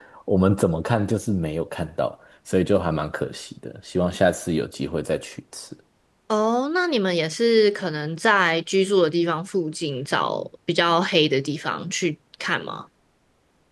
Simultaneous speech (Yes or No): No